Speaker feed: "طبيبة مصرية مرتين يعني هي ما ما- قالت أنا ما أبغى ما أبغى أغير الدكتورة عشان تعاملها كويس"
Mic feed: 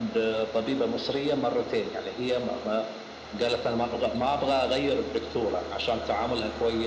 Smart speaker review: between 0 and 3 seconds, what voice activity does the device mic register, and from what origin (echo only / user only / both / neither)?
echo only